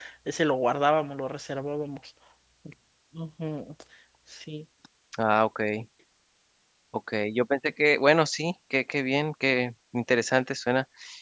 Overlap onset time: none

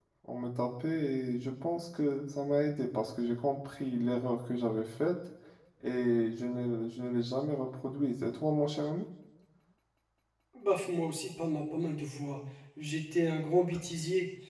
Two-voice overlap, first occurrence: none

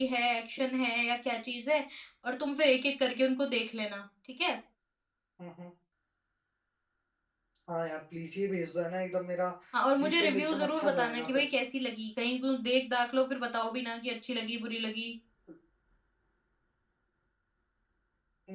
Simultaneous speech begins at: 10.0 s

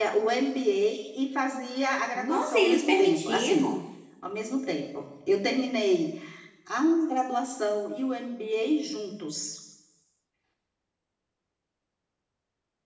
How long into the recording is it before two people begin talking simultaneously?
2.2 s

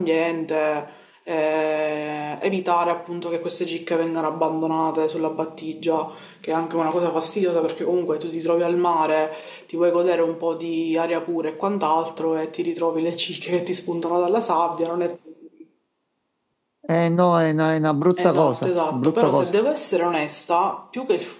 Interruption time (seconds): 18.1 s

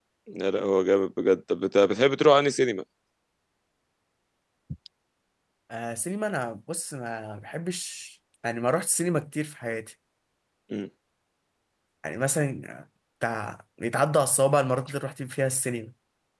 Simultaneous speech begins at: none

